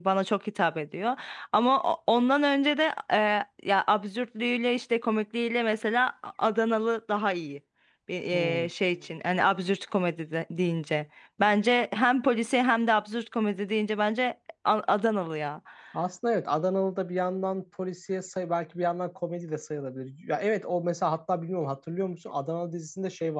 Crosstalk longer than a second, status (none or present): none